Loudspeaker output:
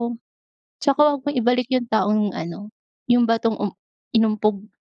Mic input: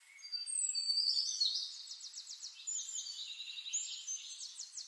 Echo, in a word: none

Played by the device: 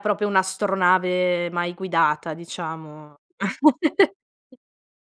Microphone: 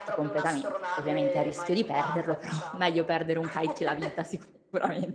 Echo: present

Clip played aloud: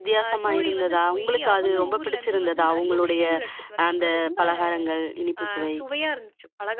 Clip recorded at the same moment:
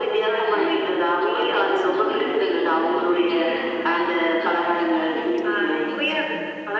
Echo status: present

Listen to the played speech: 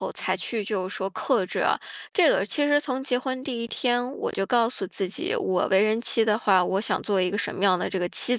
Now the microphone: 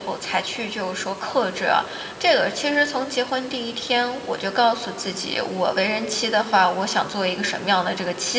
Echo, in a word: present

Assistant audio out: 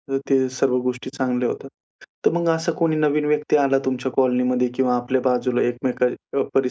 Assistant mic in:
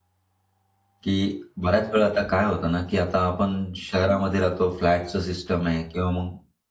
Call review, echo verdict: none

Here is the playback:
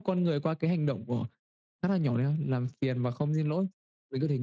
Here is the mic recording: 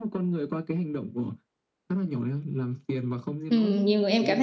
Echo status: present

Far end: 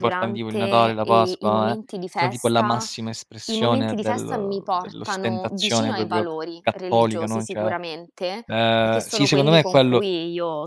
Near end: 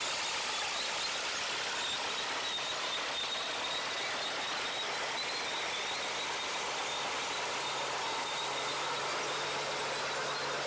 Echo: none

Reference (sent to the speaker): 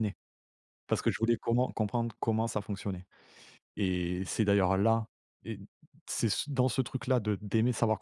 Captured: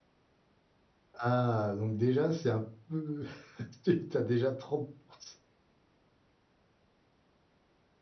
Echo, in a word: none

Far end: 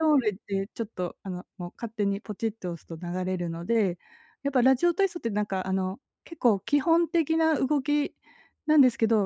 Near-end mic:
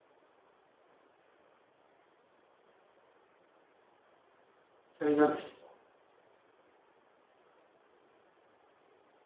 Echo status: none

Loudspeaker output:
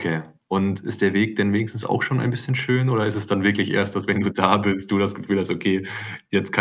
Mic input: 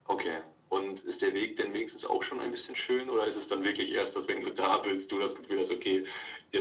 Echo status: present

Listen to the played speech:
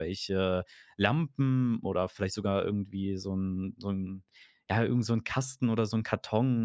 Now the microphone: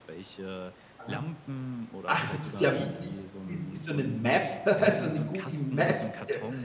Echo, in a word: present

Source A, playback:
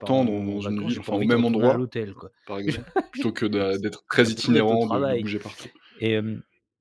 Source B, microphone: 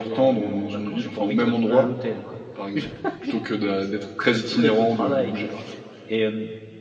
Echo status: present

